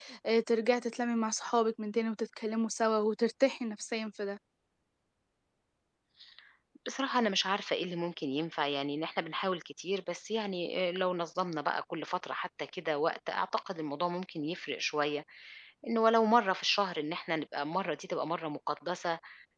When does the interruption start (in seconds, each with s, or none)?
none